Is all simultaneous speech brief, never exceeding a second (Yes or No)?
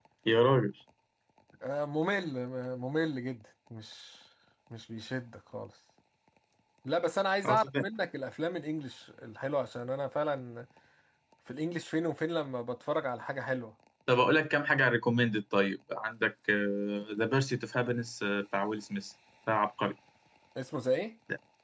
Yes